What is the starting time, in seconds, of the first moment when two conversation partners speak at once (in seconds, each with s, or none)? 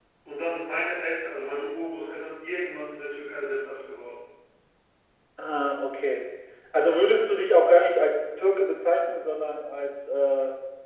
none